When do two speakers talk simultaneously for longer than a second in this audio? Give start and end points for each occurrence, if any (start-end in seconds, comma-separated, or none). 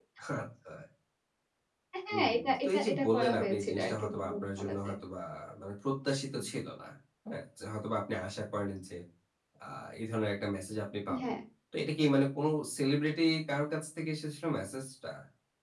2.1-5.0